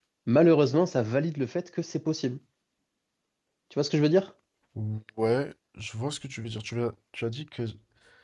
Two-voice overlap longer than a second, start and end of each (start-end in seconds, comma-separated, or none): none